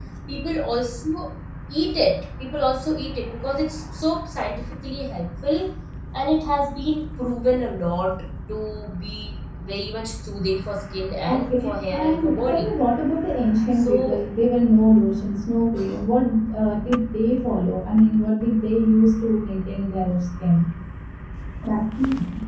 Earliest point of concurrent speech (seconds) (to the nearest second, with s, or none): 11 s